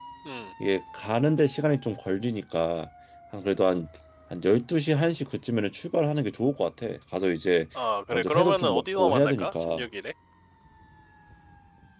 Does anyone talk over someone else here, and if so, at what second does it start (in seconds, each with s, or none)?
8.1 s